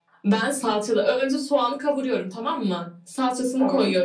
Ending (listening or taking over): listening